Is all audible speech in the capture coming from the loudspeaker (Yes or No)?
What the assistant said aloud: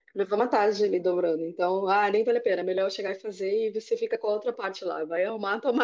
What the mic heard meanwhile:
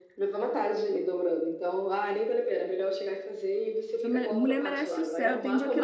No